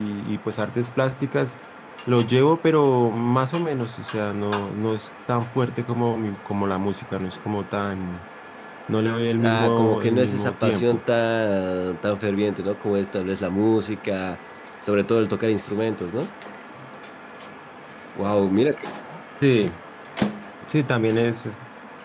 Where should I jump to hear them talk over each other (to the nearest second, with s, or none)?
9 s